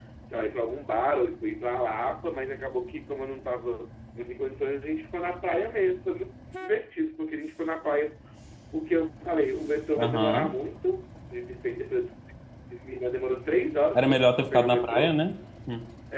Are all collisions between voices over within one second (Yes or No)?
No